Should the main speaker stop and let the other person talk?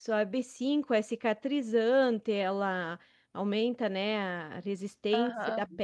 No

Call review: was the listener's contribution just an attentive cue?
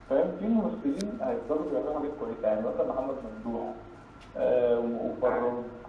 Yes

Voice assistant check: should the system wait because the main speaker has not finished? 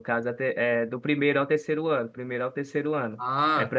Yes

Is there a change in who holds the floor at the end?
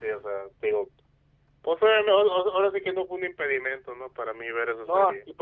Yes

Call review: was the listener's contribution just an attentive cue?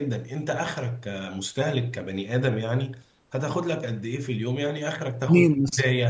Yes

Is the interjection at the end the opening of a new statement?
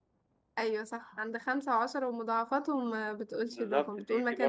Yes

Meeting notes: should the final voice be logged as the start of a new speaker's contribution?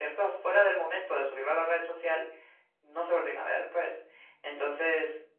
No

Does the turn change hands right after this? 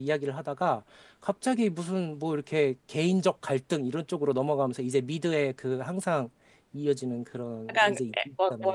Yes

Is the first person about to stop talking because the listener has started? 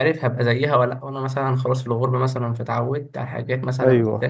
No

